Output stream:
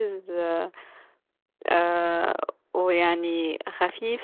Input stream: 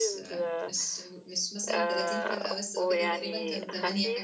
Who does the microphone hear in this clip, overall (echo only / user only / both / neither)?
both